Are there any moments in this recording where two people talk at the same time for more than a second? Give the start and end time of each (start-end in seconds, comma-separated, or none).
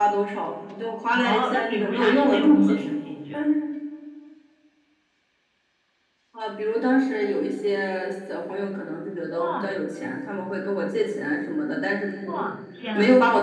1.1-2.9